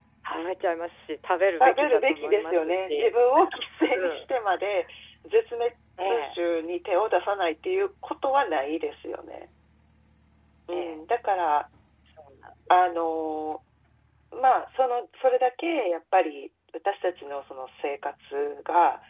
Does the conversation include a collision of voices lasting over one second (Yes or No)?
Yes